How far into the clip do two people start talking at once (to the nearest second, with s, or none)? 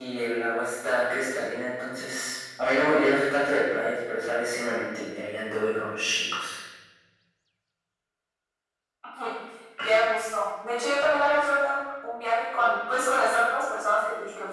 none